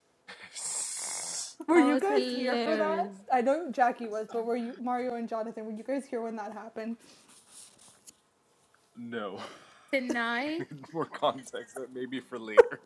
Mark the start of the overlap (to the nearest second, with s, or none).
2 s